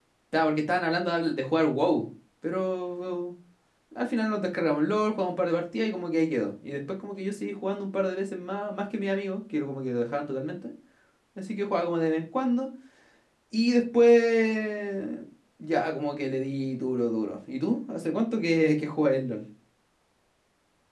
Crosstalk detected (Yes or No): No